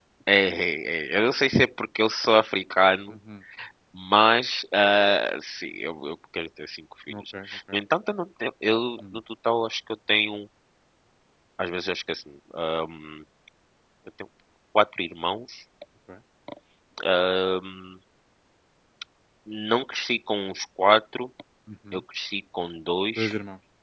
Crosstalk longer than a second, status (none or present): none